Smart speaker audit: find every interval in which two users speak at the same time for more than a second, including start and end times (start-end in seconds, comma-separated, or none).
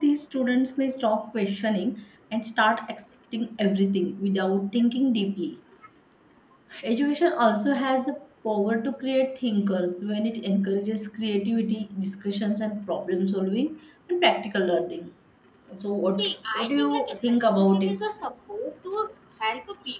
16.1-18.0